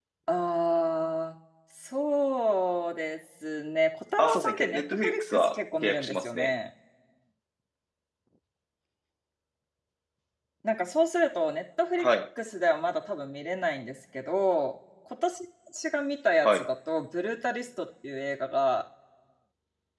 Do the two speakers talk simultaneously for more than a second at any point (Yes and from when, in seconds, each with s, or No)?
Yes, from 4.2 s